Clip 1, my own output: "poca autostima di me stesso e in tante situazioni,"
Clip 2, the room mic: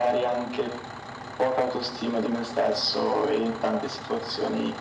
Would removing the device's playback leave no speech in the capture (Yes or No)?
Yes